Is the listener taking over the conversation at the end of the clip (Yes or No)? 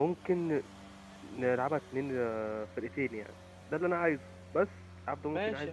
Yes